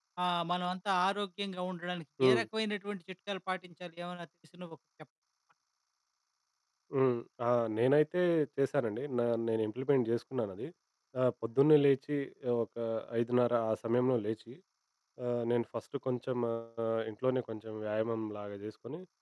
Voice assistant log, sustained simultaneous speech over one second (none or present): none